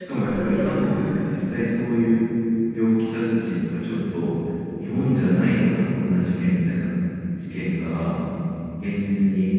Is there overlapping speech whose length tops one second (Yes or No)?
Yes